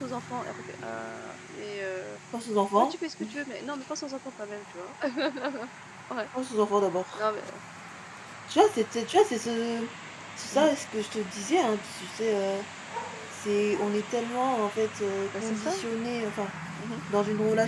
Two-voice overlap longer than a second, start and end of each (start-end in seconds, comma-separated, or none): none